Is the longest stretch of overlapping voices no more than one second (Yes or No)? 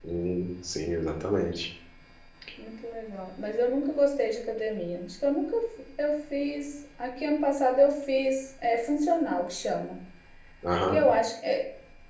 Yes